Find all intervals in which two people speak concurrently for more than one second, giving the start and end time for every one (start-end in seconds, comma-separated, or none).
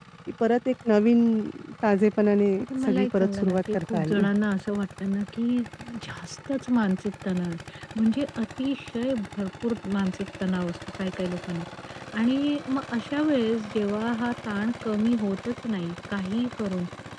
2.6-4.2